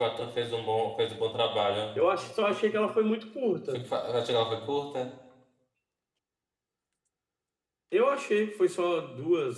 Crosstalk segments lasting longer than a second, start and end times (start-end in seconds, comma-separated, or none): none